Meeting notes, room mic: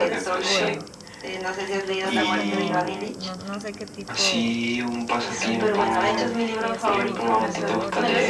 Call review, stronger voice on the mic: echo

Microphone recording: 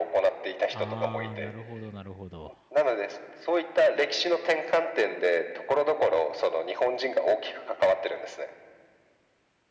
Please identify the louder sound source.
echo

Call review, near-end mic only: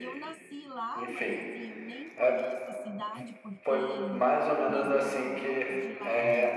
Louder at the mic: echo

